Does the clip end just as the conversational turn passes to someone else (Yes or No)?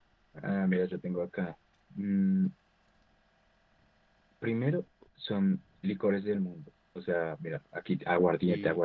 No